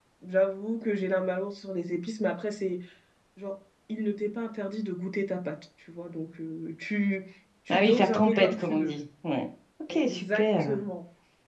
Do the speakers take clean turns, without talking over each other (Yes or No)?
No